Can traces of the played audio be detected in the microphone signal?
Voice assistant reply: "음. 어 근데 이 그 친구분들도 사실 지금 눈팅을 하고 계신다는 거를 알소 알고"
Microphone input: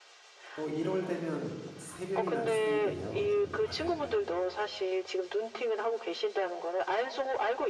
Yes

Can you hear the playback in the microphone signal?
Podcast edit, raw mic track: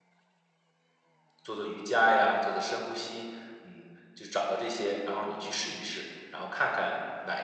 No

